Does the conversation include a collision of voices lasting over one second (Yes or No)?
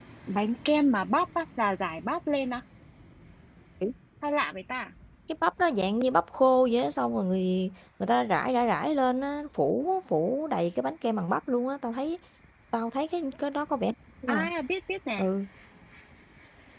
No